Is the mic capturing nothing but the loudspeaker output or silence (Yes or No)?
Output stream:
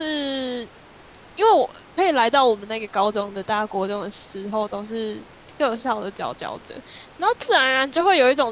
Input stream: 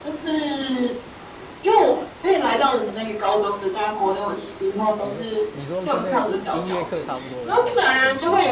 No